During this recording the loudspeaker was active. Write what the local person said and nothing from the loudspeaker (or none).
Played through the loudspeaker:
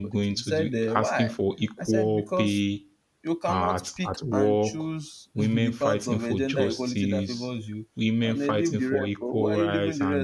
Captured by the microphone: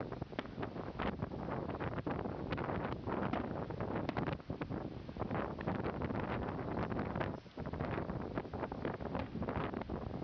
none